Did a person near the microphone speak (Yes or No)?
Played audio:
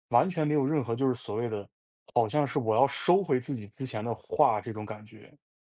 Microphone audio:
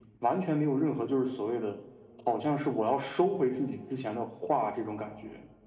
No